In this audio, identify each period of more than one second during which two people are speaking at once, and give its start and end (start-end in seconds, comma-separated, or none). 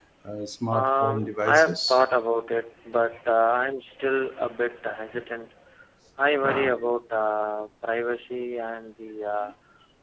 0.7-2.1